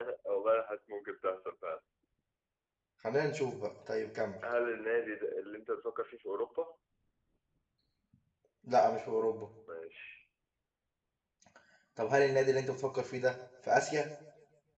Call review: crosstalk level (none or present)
none